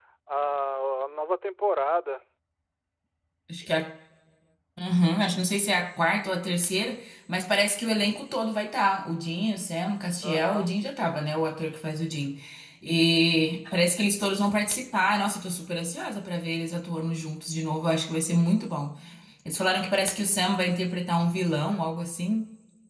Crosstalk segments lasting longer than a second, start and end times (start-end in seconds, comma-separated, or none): none